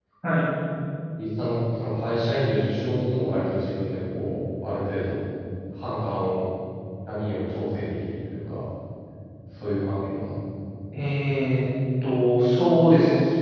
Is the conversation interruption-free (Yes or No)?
Yes